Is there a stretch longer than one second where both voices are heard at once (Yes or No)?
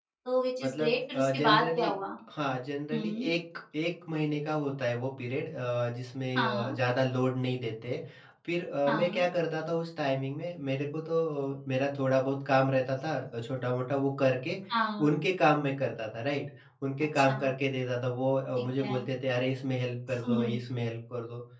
Yes